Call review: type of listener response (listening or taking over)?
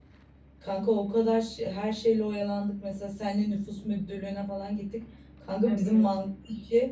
listening